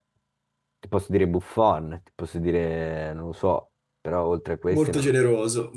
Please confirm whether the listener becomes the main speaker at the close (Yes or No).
Yes